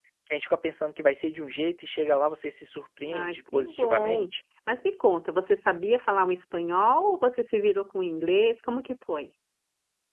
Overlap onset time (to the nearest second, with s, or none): 3 s